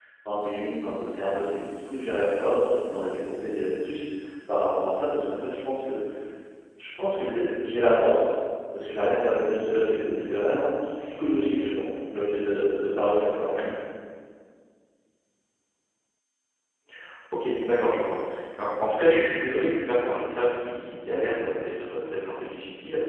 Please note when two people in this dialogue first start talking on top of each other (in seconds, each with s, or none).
none